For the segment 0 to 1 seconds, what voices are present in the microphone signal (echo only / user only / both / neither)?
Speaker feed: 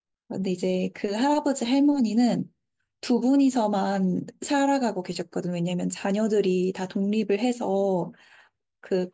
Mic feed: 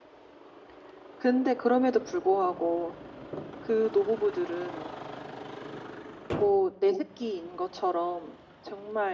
neither